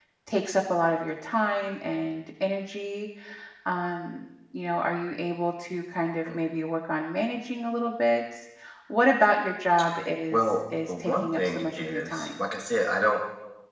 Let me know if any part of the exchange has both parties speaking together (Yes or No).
Yes